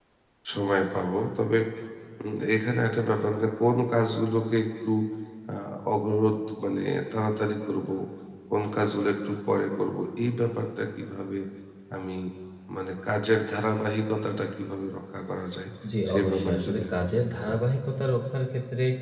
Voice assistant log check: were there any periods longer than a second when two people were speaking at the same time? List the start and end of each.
16.1-17.6

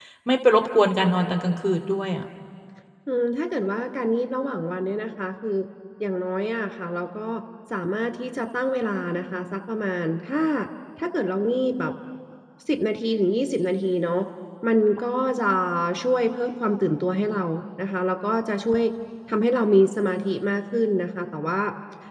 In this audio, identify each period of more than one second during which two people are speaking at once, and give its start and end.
none

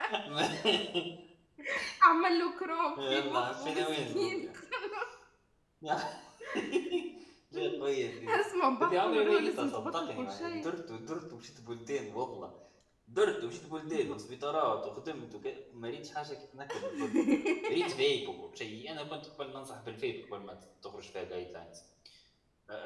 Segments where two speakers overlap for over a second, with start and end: 3.0-4.3, 8.8-10.7

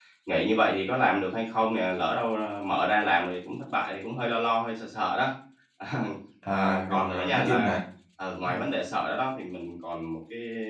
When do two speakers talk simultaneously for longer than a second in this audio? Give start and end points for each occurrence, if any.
6.5-7.8

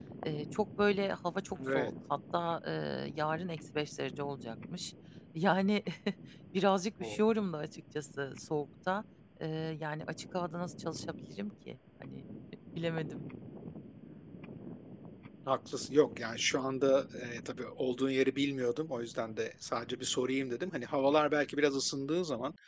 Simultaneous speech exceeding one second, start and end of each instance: none

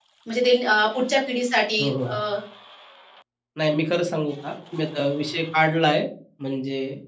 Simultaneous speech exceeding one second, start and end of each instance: none

